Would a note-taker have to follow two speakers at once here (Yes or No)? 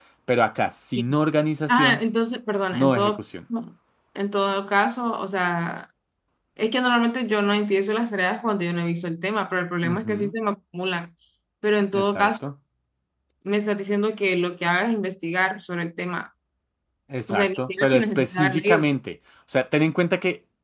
Yes